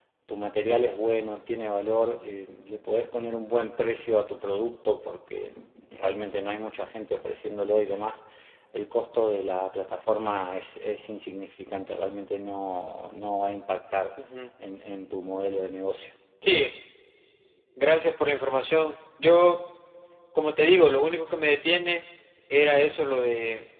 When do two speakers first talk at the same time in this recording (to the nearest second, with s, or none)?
none